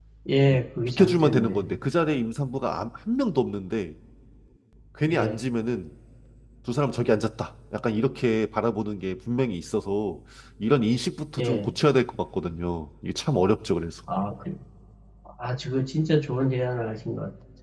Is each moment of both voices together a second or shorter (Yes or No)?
No